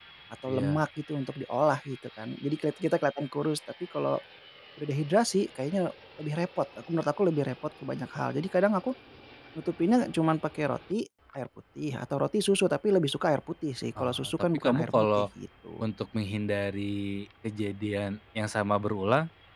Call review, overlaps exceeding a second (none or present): present